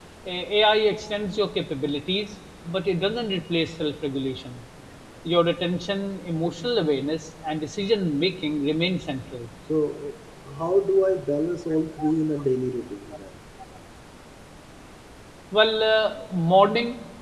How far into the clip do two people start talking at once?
none

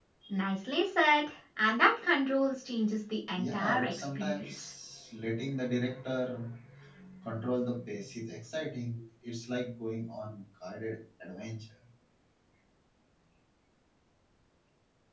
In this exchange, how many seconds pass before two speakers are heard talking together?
3.4 s

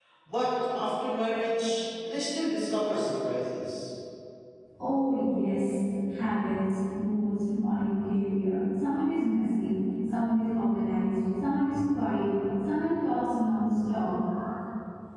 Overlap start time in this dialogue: none

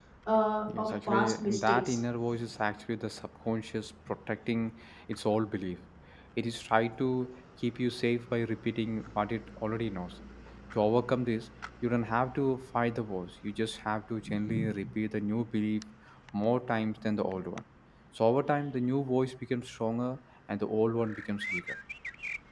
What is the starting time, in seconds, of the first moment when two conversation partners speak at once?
0.8 s

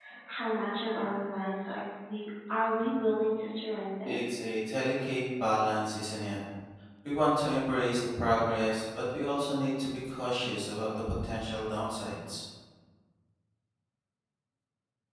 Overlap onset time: none

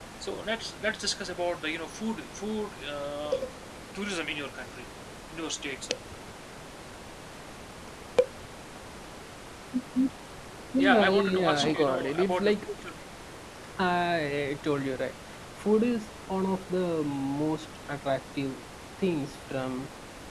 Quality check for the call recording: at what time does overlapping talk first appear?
10.8 s

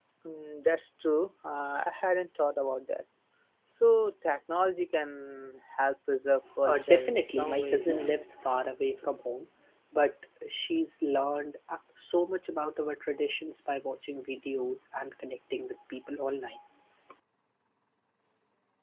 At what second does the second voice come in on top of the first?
6.6 s

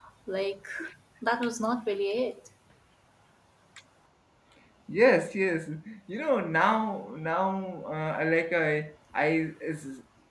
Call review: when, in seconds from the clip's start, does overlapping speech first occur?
none

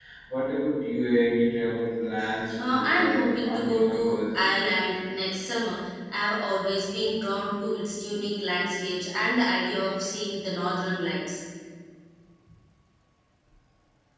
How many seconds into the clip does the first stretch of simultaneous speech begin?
2.6 s

